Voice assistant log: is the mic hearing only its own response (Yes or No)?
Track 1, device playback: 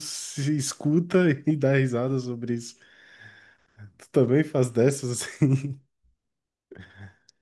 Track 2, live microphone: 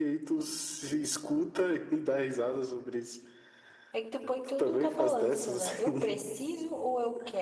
No